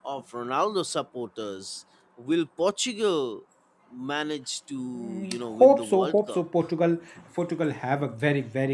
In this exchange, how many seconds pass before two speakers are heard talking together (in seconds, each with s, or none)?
4.9 s